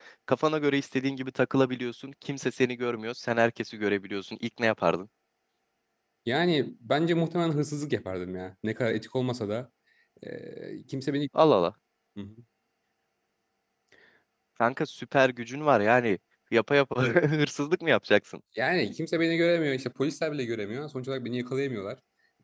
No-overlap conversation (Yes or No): Yes